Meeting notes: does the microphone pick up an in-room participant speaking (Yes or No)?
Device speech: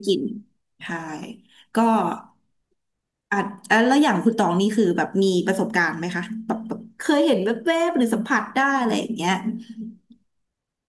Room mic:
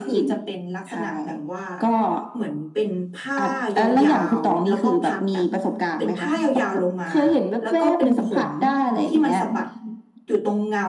Yes